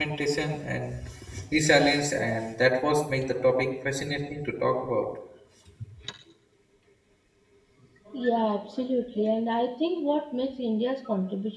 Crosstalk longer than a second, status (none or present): none